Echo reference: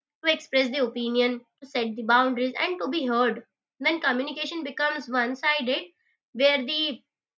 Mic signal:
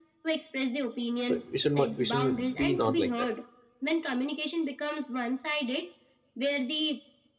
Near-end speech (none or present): present